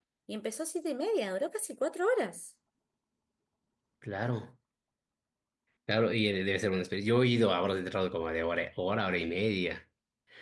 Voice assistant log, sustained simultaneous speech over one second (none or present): none